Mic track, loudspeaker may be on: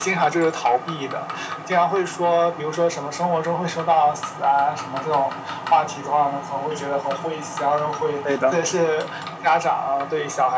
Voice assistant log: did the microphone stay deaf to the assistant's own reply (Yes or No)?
No